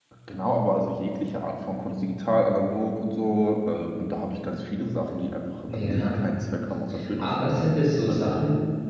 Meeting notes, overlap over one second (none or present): present